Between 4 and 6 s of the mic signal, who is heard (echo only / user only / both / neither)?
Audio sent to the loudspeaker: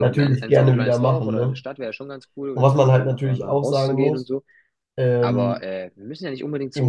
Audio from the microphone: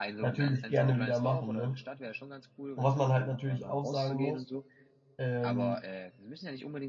echo only